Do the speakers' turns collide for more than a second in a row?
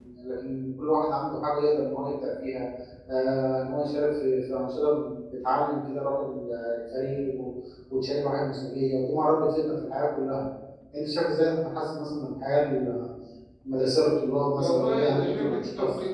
Yes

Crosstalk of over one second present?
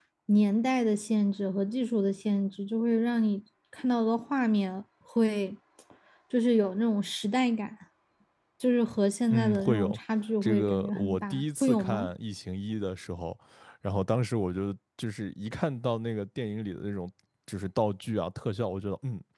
Yes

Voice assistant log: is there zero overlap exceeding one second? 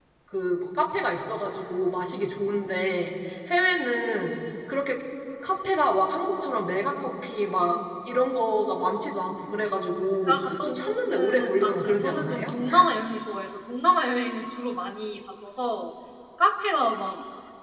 No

